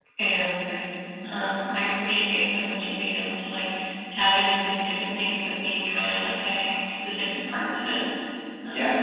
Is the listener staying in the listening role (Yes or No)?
No